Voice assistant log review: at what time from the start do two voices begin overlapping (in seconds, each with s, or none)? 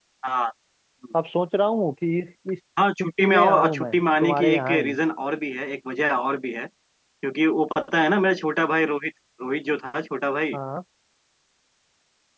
3.0 s